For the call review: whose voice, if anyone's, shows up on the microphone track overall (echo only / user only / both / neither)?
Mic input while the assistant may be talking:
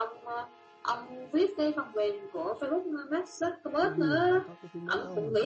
both